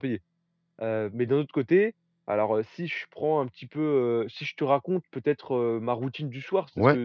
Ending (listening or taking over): listening